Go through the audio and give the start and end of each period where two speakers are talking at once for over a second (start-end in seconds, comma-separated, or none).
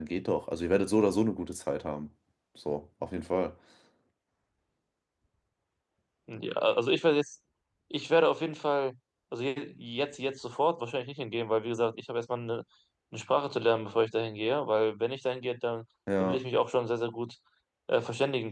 none